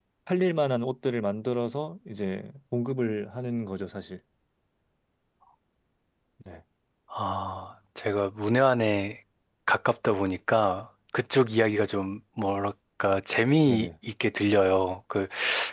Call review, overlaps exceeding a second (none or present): none